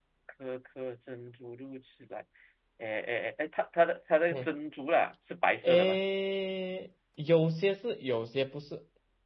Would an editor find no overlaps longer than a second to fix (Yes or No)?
Yes